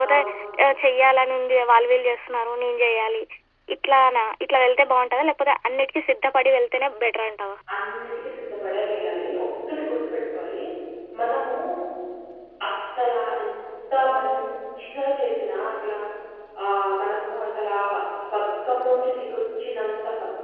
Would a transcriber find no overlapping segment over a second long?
Yes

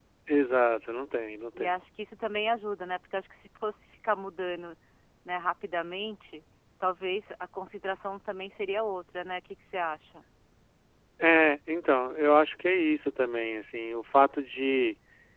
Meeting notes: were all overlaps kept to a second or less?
Yes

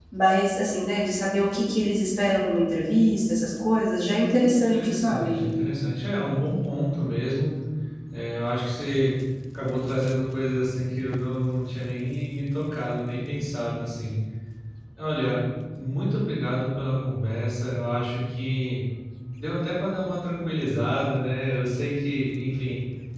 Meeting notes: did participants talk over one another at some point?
Yes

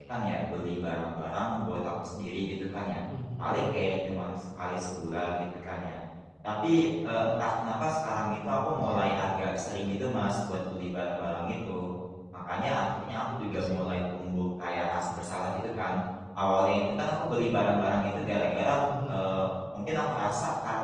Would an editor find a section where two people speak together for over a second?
No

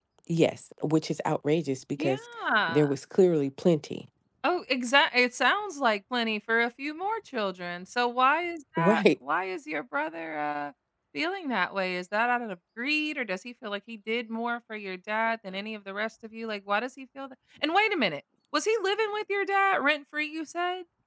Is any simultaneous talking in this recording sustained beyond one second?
No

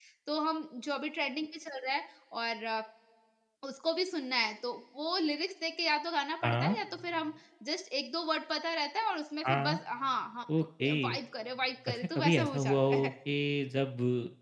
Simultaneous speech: Yes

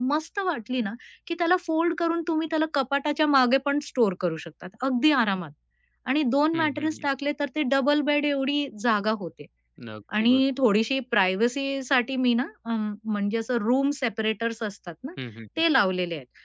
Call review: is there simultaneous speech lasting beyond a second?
No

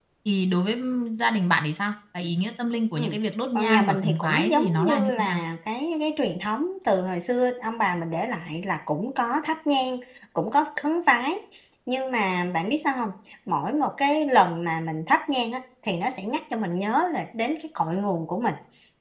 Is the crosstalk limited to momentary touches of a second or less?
No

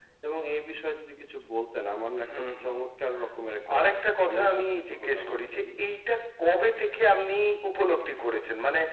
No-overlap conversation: No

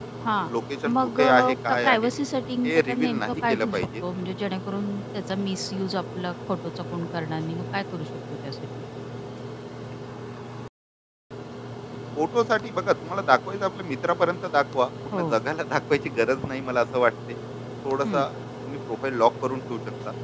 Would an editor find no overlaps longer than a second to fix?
No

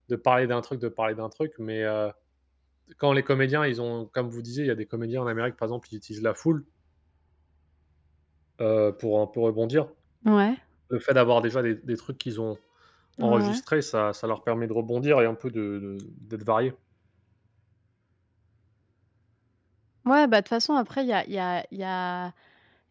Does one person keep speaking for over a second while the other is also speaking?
No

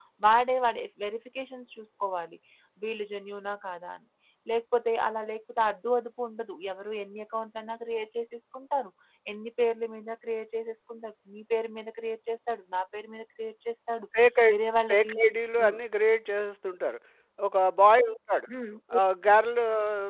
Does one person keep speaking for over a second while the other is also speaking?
No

